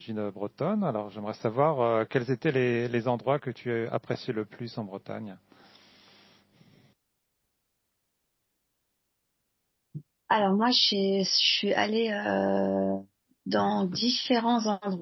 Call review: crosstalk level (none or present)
none